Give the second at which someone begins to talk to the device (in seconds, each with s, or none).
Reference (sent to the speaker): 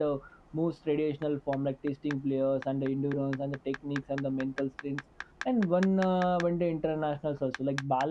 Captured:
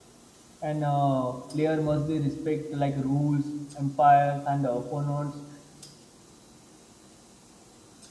0.6 s